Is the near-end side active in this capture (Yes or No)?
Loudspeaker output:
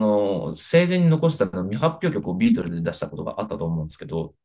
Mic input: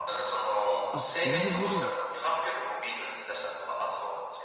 Yes